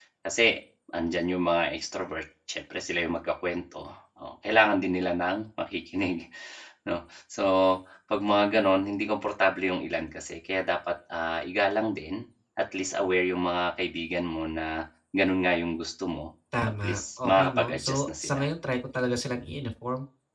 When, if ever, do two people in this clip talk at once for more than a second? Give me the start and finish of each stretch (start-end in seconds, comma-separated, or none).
16.6-18.4